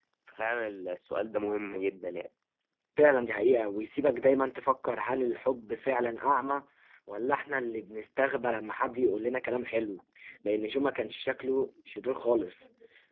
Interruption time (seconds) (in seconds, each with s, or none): none